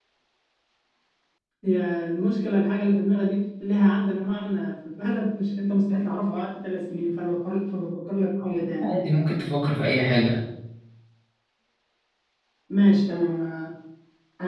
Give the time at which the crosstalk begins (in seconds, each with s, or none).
none